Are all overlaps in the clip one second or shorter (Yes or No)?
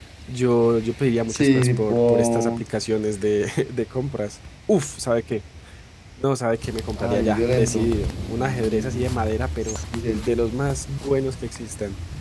No